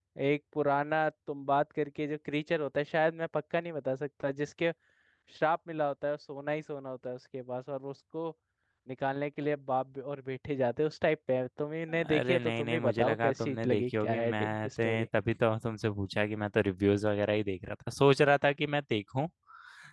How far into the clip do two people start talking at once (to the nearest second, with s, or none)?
12 s